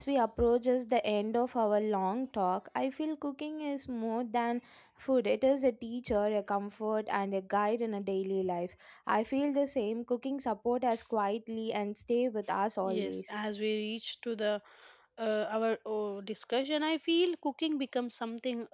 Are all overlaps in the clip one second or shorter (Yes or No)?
Yes